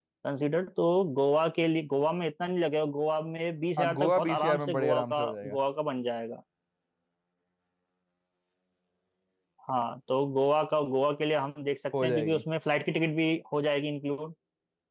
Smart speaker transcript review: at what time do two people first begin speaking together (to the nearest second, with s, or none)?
4 s